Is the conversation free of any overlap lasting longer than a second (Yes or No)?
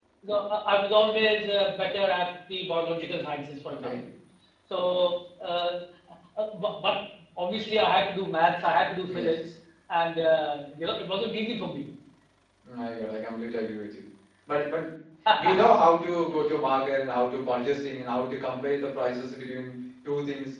Yes